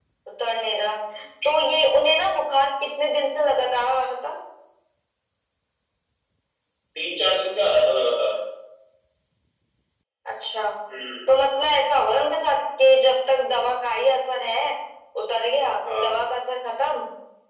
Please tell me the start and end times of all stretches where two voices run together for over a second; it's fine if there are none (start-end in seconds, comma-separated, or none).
none